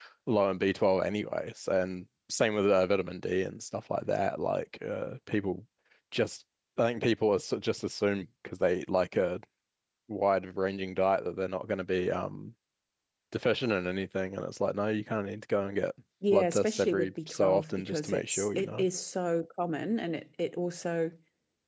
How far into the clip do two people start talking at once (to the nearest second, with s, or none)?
16 s